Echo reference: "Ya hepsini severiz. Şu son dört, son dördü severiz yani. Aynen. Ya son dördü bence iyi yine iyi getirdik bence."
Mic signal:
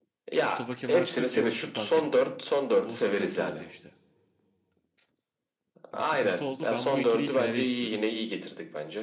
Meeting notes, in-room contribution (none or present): present